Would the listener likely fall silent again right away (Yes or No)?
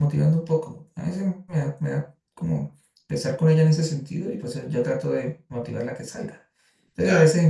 Yes